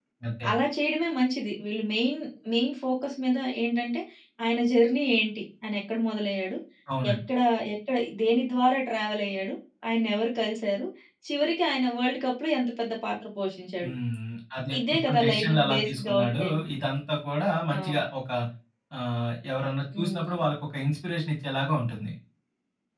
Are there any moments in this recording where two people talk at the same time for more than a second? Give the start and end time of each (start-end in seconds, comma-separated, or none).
14.9-16.6